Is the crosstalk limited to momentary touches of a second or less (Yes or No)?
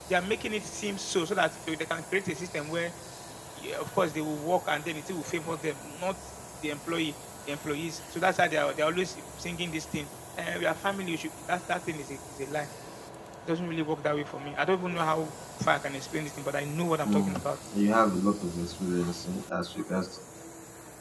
Yes